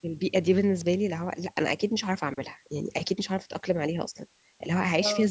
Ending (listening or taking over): listening